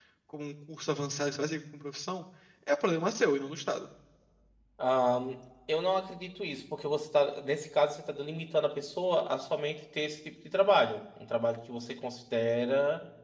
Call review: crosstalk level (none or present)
none